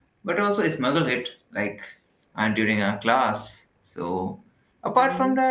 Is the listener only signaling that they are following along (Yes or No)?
Yes